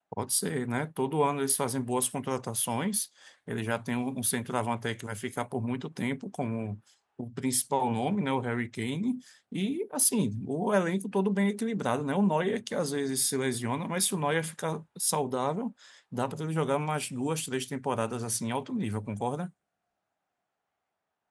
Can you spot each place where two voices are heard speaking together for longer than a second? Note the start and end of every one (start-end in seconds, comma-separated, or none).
none